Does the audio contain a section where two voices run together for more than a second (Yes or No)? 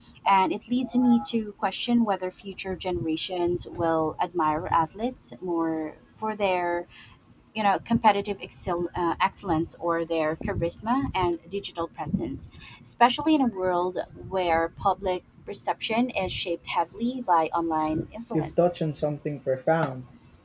No